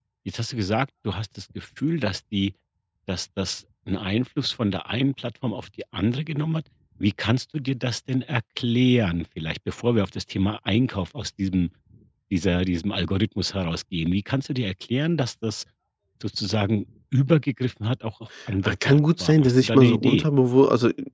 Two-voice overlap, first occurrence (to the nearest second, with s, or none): 19 s